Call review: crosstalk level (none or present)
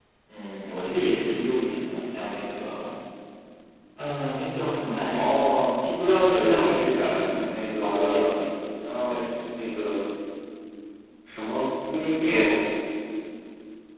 present